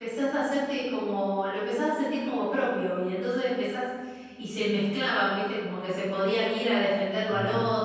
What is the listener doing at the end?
listening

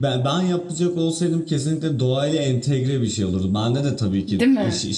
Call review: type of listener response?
listening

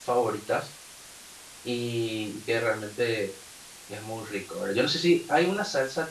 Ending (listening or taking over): listening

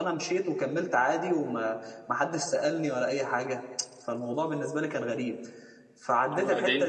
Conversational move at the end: listening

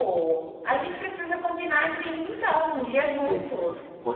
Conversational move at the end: taking over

